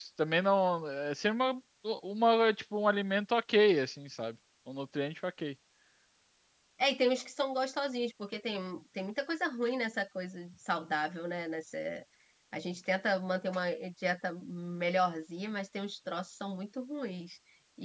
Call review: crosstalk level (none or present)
none